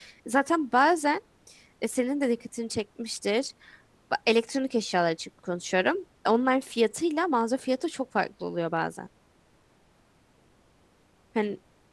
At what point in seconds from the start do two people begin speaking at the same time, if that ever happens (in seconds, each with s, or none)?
none